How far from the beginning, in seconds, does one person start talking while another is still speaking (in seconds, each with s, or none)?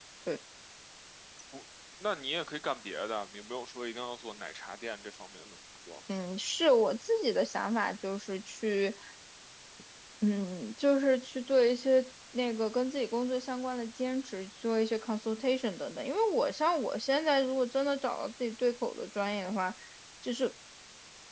none